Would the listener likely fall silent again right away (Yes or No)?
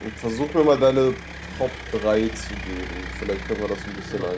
No